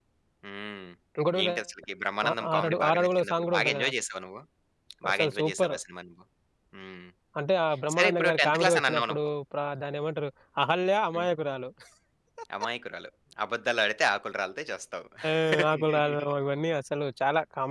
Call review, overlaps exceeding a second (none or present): present